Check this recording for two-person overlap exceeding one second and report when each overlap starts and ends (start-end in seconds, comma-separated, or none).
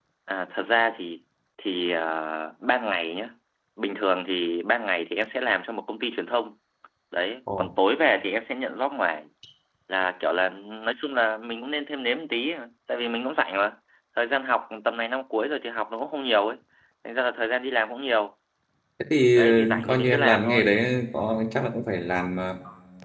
19.4-20.6